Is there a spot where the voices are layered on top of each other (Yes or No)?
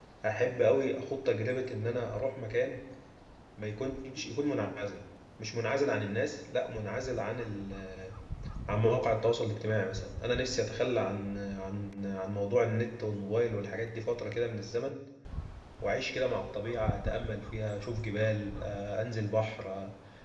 No